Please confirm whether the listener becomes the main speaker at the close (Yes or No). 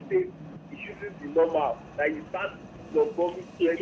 Yes